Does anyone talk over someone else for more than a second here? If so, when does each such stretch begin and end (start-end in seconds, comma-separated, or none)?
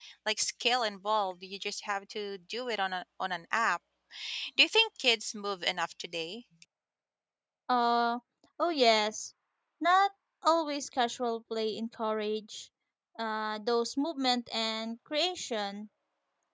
none